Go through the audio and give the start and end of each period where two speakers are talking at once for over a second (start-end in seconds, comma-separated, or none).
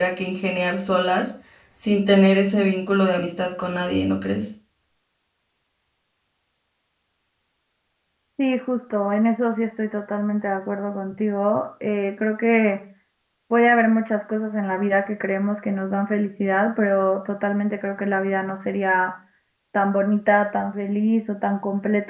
none